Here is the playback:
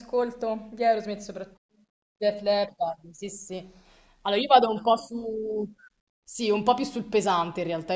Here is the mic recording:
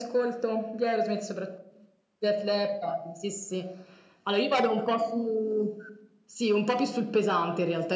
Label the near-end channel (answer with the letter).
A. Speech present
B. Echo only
B